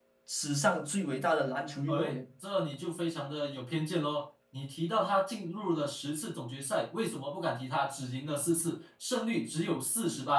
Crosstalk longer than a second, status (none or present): none